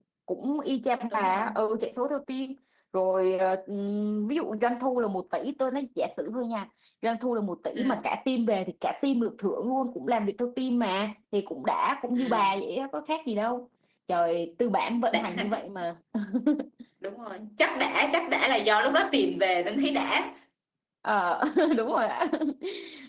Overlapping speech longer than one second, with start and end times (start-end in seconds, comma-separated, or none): none